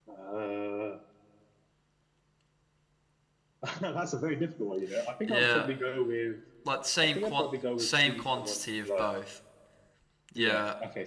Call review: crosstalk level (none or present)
present